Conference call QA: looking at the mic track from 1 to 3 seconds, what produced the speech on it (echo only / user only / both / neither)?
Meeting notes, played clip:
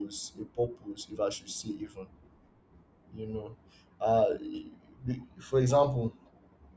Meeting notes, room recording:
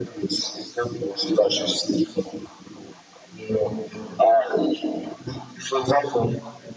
echo only